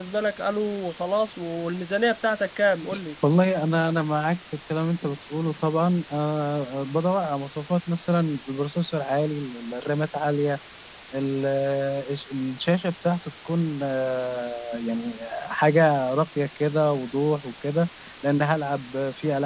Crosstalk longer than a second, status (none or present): none